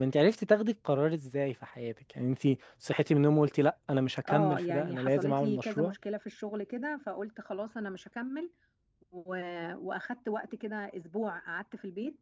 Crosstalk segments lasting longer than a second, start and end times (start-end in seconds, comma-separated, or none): 4.3-5.9